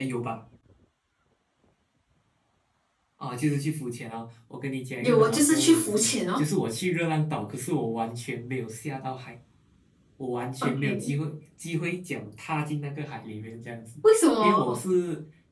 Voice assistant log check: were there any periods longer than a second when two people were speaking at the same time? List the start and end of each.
5.0-6.4

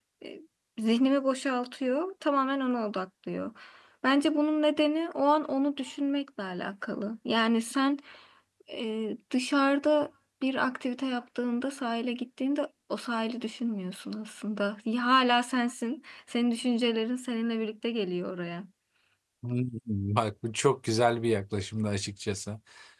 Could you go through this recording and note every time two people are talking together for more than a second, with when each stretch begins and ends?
none

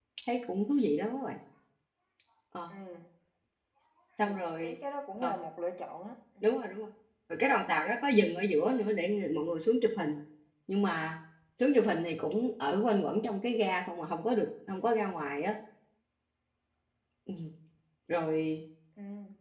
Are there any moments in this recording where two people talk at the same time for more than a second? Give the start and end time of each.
none

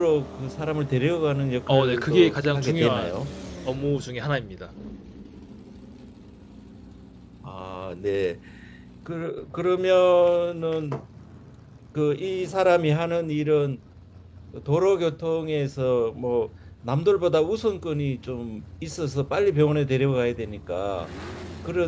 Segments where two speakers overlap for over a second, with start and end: 1.7-3.1

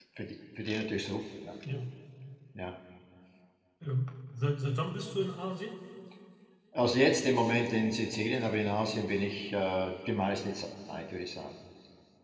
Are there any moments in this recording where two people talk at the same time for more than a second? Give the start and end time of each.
none

